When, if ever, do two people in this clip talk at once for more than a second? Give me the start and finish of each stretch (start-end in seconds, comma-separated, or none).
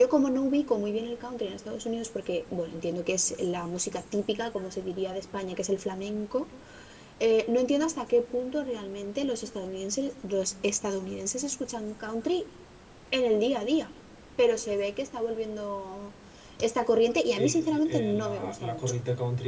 17.4-19.0